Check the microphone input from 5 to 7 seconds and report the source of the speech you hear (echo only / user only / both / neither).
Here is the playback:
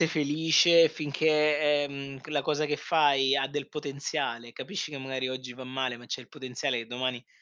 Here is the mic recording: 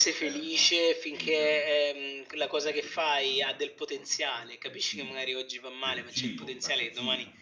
both